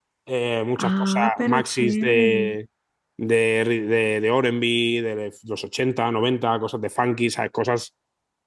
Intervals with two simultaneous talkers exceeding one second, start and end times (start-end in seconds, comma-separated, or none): 0.8-2.2